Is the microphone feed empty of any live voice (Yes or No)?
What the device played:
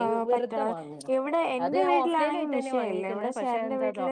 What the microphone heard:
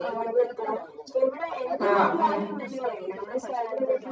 No